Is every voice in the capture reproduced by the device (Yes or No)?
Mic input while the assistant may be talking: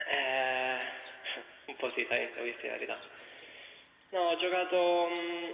Yes